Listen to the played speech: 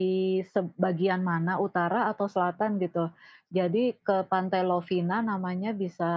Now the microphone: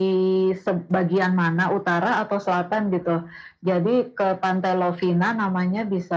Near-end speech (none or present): none